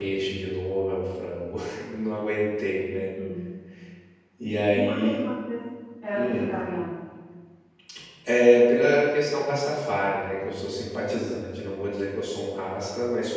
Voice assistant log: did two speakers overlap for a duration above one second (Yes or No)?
No